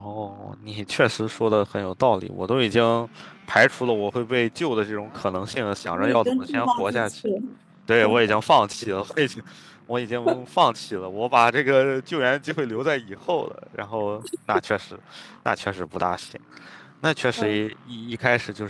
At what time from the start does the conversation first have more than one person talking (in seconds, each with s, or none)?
5.9 s